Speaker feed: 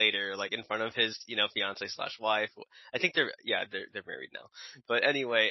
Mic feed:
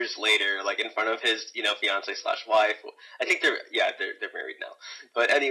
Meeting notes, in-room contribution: none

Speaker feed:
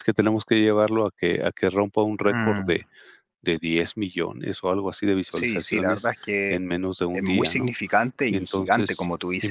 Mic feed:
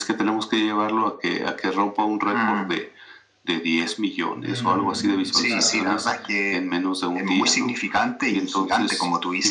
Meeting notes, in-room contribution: present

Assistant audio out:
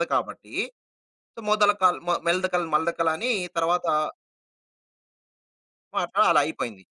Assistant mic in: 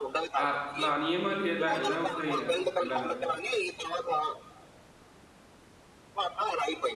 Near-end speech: present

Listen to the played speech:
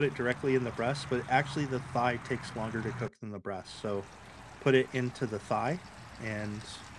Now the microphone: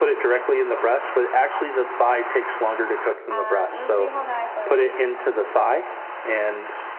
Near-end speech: present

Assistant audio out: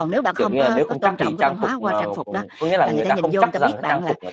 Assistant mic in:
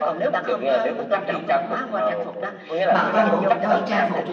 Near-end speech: present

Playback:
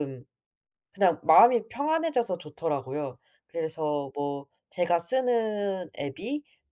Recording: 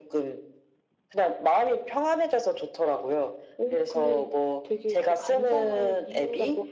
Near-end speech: present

